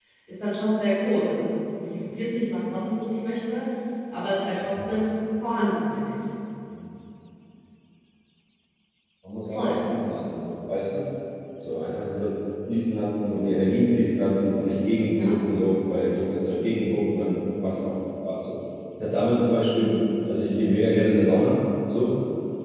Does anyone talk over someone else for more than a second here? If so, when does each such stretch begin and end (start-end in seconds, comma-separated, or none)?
none